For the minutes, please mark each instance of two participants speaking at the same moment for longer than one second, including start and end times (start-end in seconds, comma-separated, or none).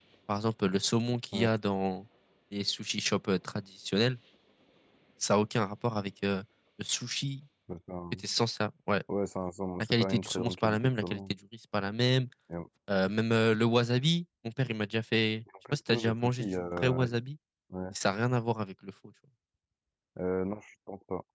9.8-11.2, 15.7-17.0